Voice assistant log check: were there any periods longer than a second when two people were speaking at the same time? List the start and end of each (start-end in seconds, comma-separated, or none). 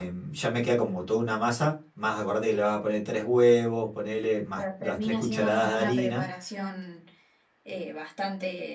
4.6-6.2